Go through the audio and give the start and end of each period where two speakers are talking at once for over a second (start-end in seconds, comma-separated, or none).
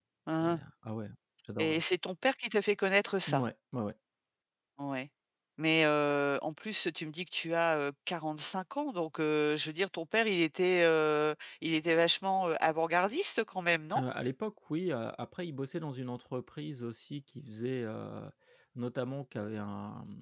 none